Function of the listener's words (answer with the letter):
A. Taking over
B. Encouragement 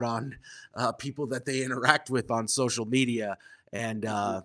B